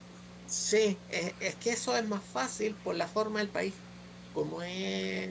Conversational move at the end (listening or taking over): listening